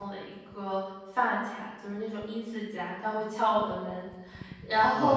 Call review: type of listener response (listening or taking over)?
listening